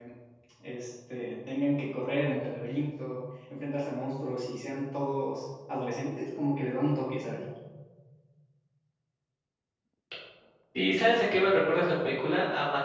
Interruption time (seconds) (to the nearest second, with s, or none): none